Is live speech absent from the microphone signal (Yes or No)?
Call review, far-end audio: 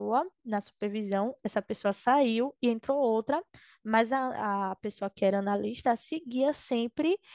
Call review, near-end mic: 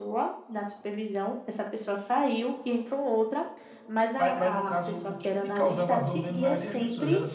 No